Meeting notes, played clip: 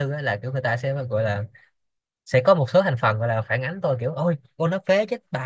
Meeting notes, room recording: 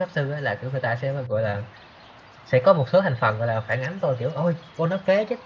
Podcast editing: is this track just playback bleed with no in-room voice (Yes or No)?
Yes